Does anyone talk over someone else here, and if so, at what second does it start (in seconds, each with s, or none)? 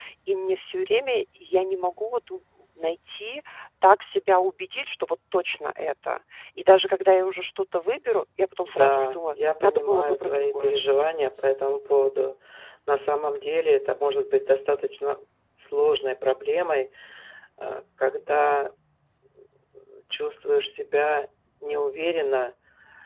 8.6 s